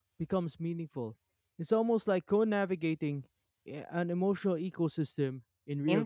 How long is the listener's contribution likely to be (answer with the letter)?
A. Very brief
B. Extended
B